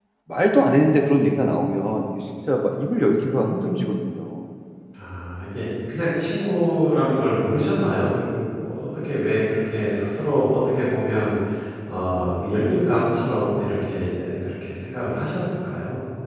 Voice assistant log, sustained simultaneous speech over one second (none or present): none